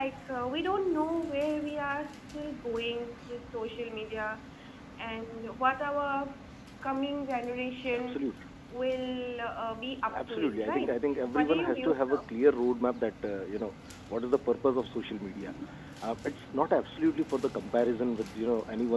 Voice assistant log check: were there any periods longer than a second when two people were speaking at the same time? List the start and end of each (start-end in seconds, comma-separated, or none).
10.3-12.2